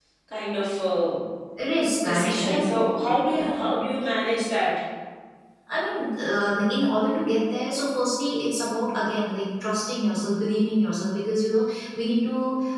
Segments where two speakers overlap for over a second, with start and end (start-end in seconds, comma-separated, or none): 2.0-3.5